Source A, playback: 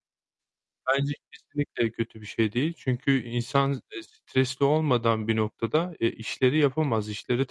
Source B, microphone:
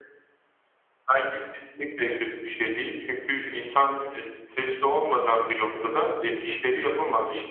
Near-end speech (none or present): none